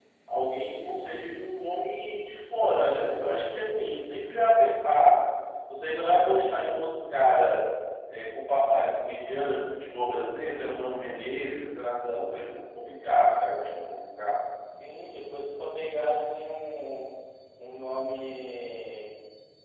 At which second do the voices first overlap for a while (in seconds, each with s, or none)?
none